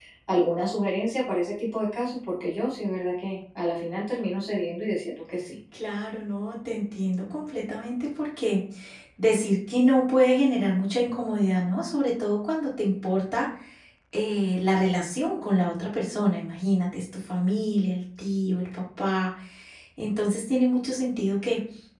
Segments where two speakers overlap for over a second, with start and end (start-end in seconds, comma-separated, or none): none